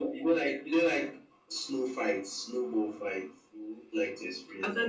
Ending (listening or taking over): taking over